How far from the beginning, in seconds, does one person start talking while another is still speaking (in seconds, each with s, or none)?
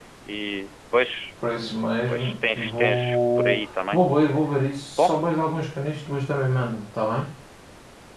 2.1 s